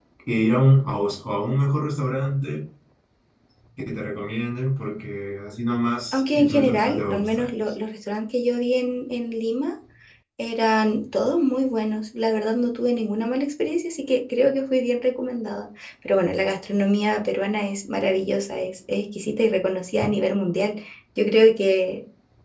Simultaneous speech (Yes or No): Yes